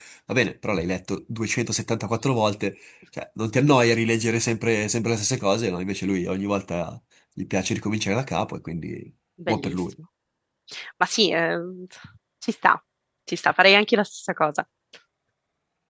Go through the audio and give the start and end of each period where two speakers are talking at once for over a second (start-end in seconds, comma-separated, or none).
none